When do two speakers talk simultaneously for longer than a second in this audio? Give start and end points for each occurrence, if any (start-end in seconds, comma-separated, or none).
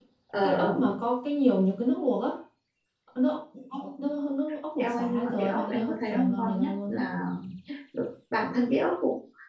4.8-7.0